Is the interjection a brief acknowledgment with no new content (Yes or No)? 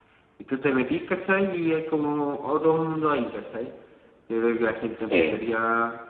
Yes